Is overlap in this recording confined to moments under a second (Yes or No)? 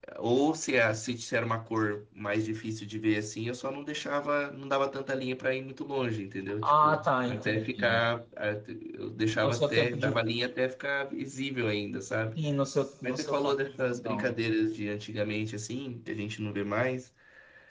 No